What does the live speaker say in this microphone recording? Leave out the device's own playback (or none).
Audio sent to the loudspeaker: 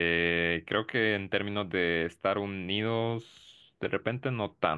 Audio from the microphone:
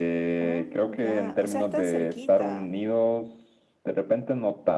Ah, ya. O sea, están cerquita.